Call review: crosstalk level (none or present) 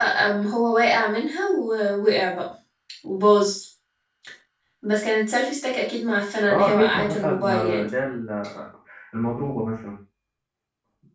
present